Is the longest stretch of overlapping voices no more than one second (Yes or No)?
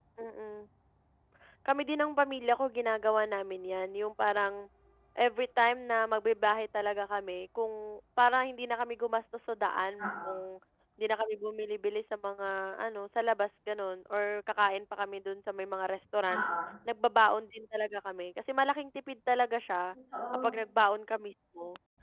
Yes